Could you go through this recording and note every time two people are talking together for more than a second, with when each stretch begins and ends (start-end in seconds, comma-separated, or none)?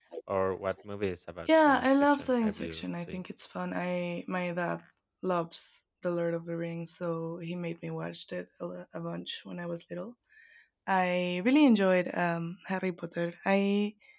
1.7-3.2